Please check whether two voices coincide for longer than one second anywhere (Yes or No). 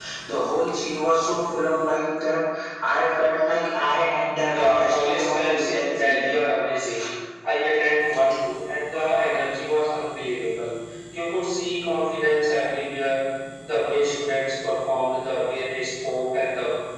Yes